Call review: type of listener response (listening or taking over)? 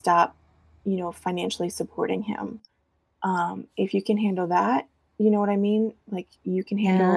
taking over